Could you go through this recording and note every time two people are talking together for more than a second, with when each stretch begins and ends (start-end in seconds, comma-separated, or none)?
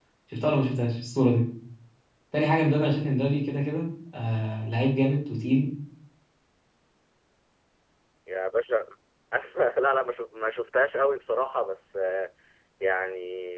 none